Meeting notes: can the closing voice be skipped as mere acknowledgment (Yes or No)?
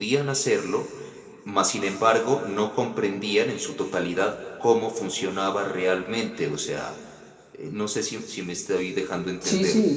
No